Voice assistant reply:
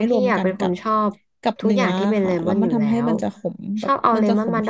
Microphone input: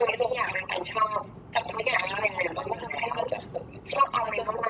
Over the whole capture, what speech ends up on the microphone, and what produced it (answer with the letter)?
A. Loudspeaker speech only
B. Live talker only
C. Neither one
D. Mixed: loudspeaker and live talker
A